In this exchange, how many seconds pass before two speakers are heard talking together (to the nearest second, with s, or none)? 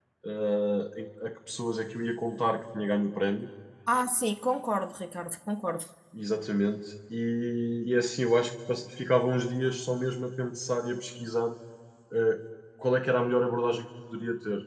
none